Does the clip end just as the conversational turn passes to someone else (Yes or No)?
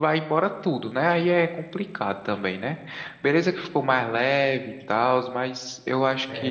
Yes